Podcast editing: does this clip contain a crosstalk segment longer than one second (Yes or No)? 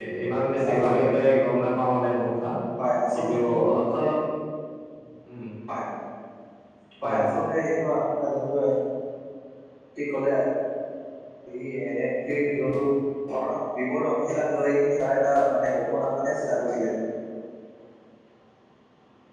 No